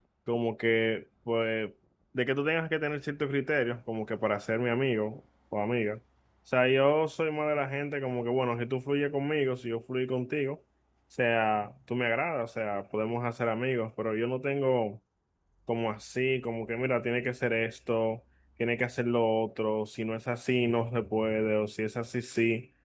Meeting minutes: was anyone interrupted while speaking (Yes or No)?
No